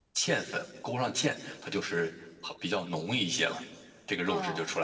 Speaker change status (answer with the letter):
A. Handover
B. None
A